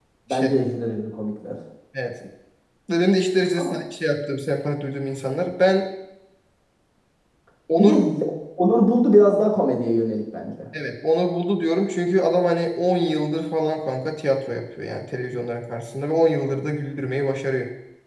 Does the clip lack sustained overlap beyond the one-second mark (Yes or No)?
Yes